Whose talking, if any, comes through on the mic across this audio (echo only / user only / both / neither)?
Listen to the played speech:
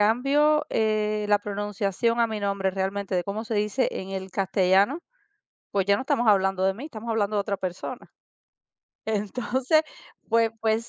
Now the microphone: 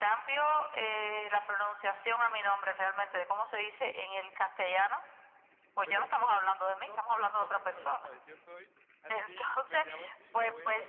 both